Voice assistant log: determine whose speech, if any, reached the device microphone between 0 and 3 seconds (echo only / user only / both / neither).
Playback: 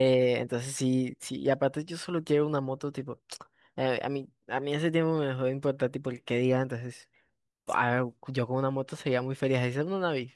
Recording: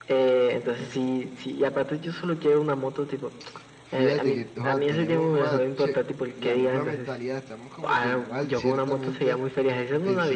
echo only